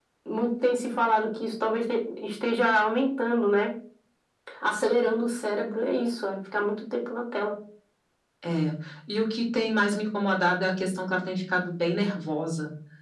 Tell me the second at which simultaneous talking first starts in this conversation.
none

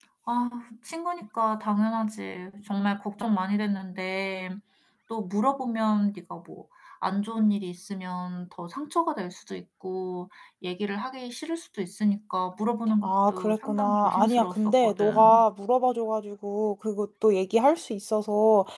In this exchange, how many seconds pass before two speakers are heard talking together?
13.0 s

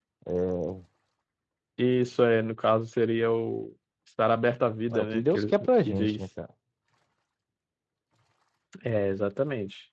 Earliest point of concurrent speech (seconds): 4.9 s

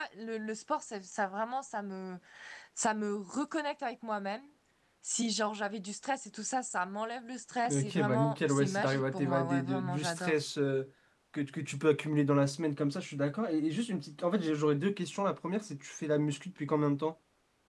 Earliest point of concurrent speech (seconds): 7.7 s

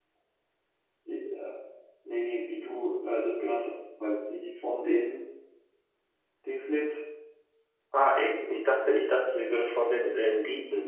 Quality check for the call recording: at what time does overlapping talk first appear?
none

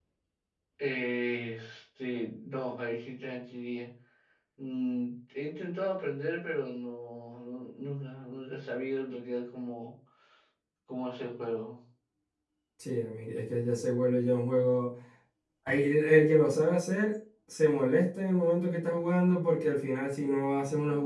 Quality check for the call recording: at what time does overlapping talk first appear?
none

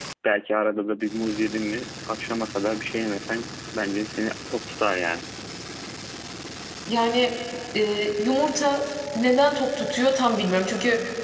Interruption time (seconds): none

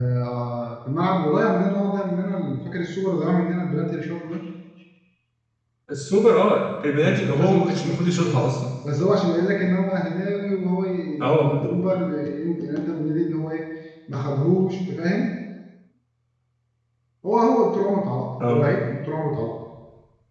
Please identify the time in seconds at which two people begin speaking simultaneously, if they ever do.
7.0 s

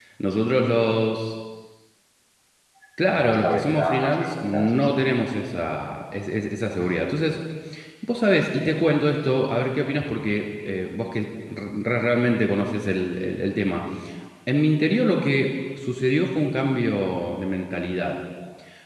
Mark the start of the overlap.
3.1 s

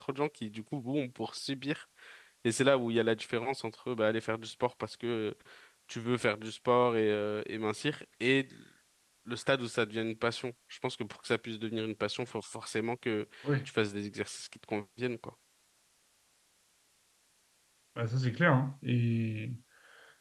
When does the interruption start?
none

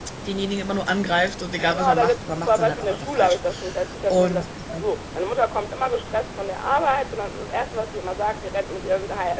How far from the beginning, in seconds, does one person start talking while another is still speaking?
1.7 s

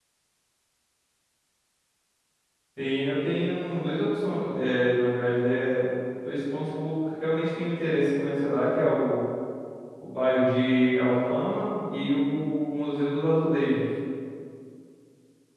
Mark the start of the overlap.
none

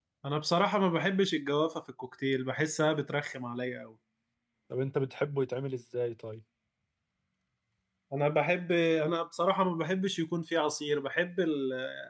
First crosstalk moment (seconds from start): none

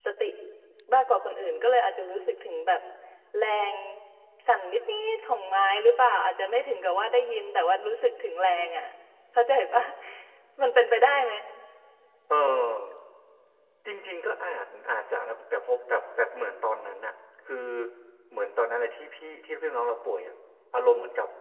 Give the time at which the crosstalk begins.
none

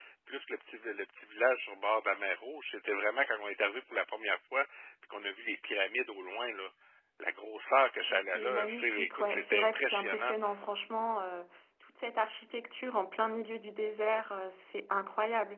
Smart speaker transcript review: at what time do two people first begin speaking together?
8.1 s

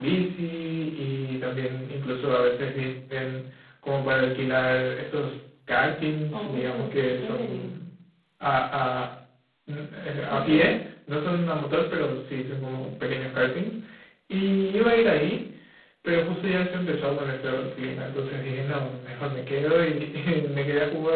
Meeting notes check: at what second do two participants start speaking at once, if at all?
6.3 s

